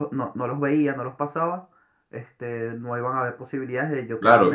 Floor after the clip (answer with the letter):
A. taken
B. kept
A